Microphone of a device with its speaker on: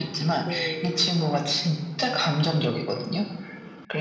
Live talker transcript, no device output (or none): 네.